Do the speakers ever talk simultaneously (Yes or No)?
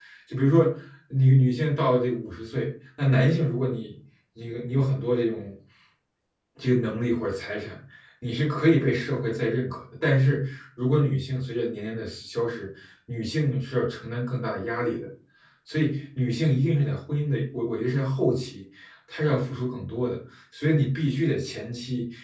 No